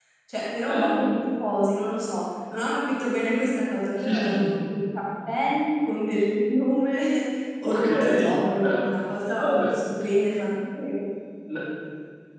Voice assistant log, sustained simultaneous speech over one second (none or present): present